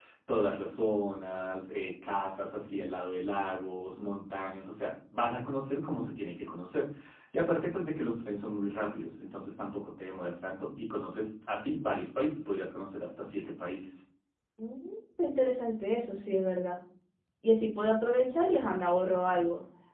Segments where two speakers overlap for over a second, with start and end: none

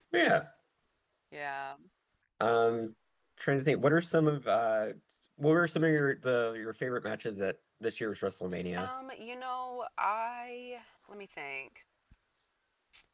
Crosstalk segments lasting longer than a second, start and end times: none

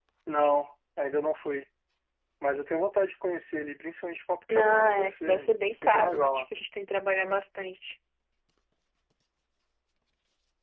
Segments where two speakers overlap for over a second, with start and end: 4.5-6.4

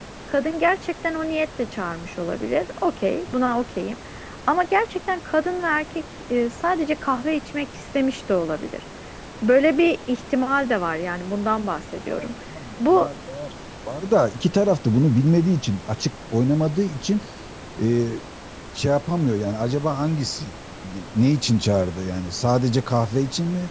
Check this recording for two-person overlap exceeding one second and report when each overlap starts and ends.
none

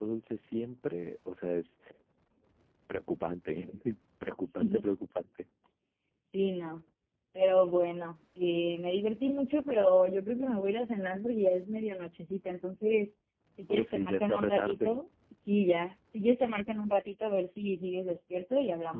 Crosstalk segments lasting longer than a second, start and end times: 13.7-15.0

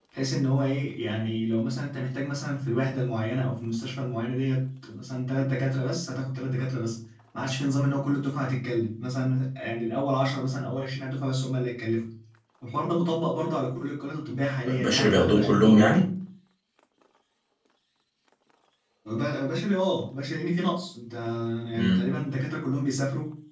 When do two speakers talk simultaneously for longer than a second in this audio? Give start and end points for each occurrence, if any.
14.8-16.0

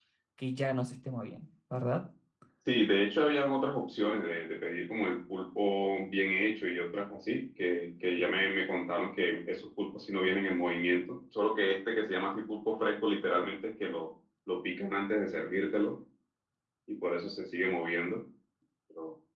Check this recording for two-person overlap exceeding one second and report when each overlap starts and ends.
none

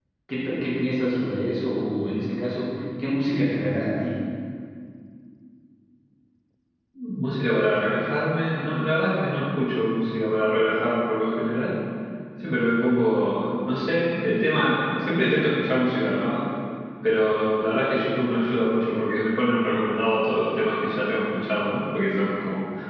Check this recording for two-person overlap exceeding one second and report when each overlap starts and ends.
none

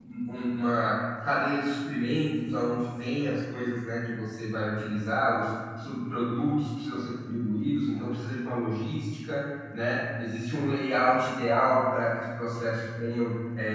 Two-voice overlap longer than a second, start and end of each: none

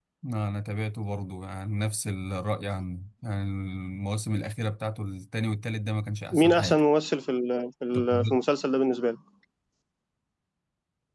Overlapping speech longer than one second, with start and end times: none

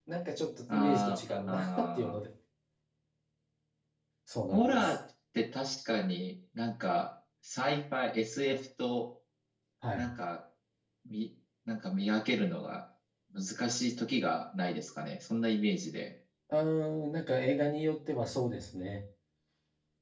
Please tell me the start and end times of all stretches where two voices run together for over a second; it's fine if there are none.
0.7-2.2

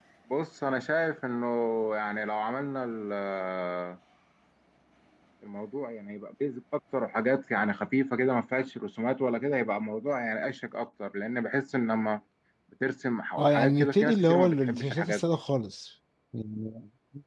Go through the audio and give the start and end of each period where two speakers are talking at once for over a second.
13.4-15.2

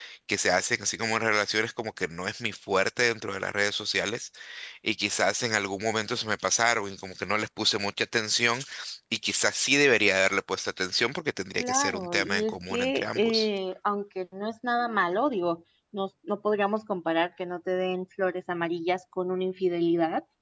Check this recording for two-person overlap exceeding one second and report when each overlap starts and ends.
11.6-13.5

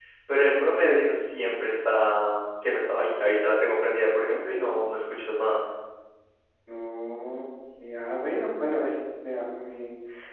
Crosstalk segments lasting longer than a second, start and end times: none

